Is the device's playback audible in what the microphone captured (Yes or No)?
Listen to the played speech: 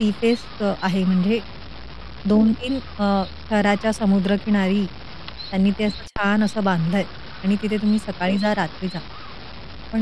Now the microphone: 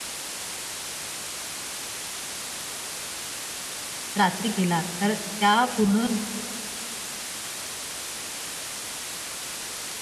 No